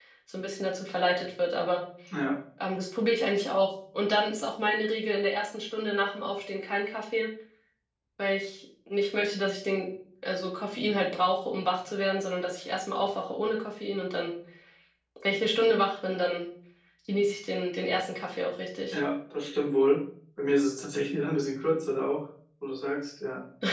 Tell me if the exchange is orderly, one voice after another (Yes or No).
Yes